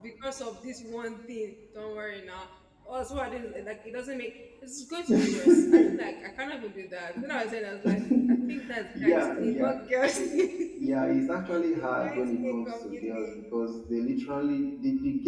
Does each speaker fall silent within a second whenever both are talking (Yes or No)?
No